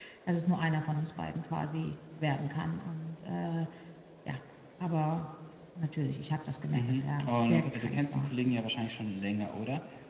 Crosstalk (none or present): present